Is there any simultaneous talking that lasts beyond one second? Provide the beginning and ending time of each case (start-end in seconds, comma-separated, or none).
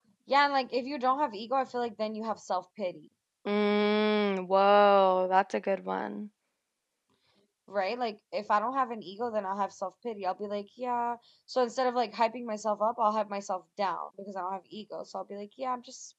none